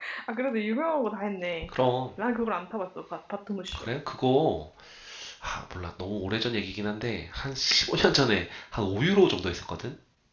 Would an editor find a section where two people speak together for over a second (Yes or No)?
No